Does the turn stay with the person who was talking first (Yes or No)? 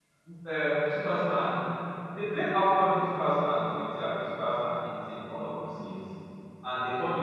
Yes